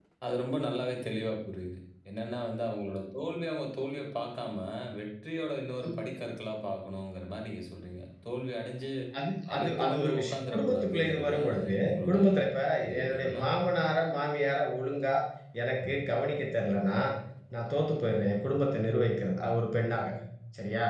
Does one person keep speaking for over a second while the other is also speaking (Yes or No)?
Yes